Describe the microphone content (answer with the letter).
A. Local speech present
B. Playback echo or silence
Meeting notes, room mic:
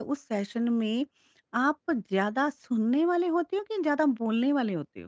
A